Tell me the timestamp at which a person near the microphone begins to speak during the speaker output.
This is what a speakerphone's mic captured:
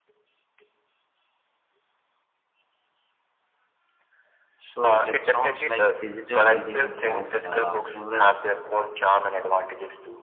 4.7 s

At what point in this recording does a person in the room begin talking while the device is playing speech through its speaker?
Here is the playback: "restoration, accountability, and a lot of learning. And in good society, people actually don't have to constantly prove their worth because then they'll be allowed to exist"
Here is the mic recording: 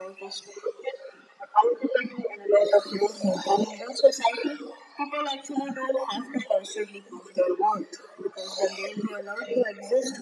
none

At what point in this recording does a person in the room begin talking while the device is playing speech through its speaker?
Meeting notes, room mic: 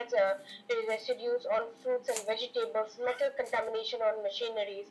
none

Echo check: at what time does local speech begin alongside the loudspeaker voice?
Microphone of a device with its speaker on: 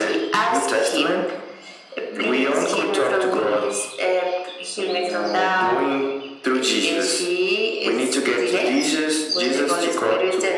none

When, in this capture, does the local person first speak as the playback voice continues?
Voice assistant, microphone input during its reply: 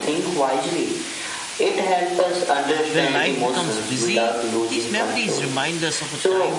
2.9 s

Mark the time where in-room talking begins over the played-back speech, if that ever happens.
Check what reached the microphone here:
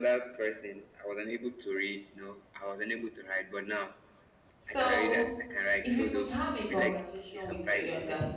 4.6 s

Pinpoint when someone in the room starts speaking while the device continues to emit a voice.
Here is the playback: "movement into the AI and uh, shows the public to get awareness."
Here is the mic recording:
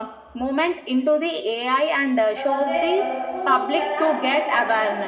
2.4 s

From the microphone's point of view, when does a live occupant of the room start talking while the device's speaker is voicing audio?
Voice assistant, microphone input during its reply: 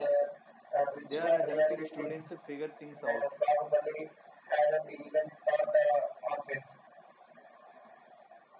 1.0 s

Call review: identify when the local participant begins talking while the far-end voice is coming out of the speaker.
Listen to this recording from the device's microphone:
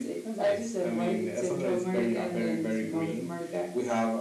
none

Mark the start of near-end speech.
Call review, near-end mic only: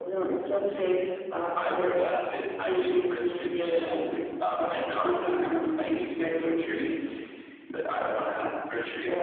5.1 s

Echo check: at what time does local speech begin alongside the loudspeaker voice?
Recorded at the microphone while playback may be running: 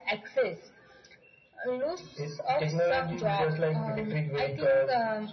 none

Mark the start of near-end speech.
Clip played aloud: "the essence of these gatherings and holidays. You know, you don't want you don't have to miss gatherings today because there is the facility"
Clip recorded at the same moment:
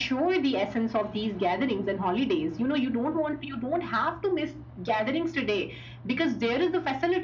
none

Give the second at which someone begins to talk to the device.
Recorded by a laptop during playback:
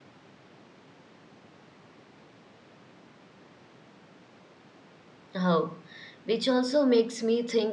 5.3 s

